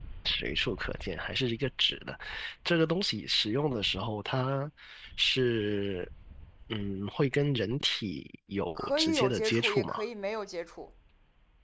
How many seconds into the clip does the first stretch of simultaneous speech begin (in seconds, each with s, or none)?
8.8 s